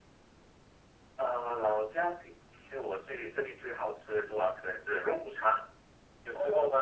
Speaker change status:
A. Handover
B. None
A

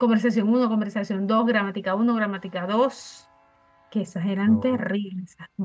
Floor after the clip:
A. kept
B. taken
A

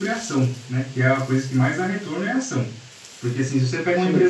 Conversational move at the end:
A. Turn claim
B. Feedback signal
B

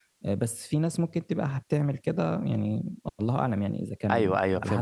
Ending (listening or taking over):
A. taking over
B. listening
A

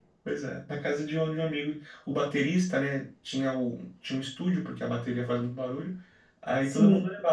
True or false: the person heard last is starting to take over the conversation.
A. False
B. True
A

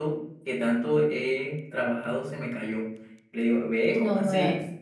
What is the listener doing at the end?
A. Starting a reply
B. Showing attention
B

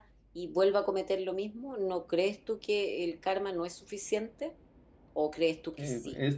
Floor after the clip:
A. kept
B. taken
B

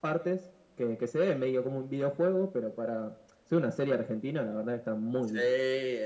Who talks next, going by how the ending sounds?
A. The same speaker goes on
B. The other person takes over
B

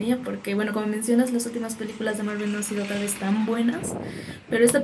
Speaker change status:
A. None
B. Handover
A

